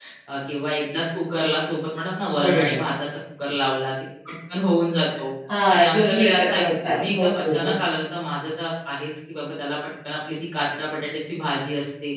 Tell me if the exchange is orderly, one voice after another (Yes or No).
No